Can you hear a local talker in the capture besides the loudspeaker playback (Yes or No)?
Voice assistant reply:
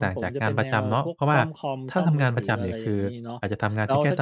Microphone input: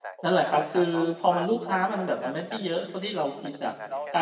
Yes